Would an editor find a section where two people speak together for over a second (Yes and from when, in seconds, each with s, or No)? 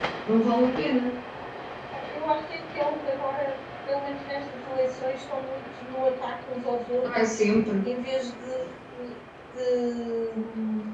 No